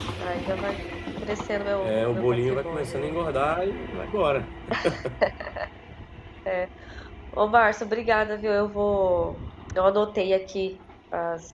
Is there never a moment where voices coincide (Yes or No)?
No